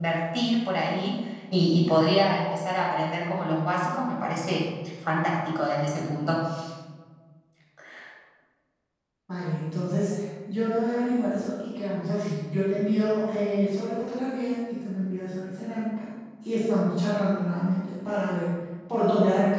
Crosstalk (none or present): none